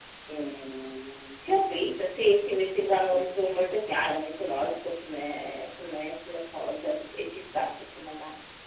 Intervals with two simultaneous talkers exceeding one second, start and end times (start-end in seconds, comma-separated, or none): none